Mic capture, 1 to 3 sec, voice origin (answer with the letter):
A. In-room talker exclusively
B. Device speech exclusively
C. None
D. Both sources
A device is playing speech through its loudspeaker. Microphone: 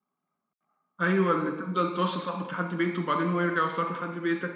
A